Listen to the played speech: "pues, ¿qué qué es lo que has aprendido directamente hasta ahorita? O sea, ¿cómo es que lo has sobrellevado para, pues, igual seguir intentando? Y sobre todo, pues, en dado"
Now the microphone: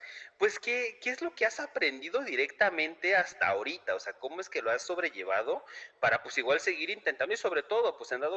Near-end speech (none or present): none